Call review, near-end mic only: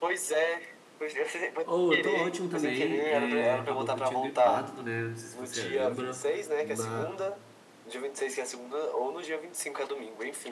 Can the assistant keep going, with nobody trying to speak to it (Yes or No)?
No